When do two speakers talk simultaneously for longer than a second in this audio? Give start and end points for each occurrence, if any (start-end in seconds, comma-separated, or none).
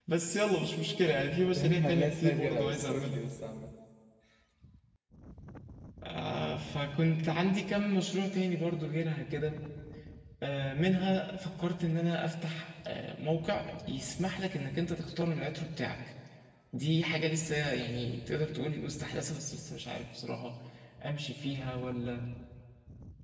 1.5-3.2